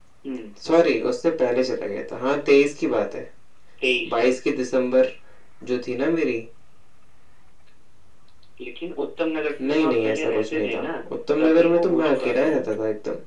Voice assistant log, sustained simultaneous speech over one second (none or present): present